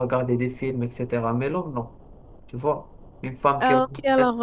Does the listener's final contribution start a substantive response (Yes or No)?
Yes